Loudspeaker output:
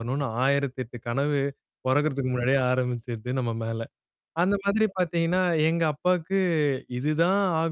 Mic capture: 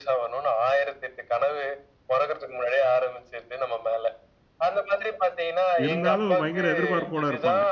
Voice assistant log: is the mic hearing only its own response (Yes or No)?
No